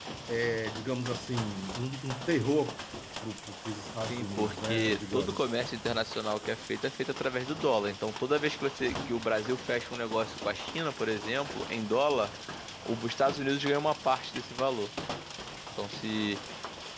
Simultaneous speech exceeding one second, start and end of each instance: 4.1-5.4

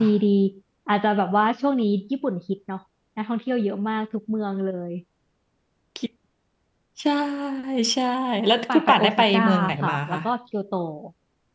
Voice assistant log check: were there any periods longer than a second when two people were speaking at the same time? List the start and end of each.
8.7-10.2

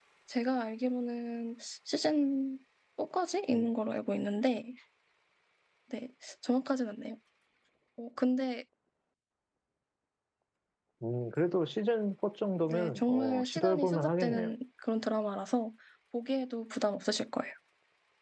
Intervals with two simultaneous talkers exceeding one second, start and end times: 12.6-14.5

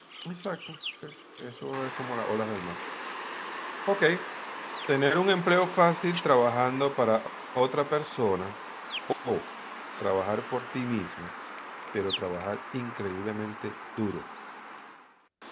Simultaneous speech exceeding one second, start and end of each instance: none

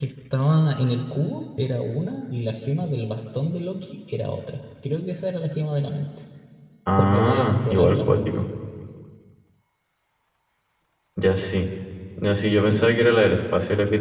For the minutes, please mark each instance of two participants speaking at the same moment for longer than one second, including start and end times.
7.0-8.5

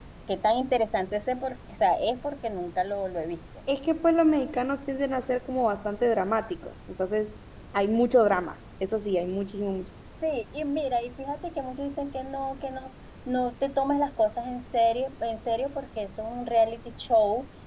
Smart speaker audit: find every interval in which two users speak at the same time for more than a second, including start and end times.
none

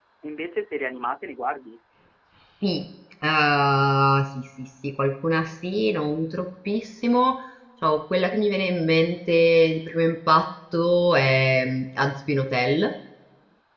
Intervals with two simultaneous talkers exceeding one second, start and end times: none

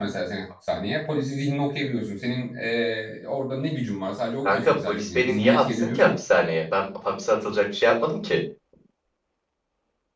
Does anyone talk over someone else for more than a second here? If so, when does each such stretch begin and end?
4.5-6.2

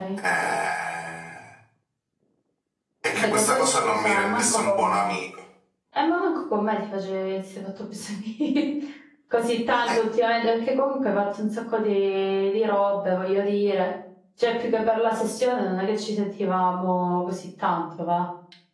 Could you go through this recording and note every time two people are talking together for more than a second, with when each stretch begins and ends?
3.1-5.1

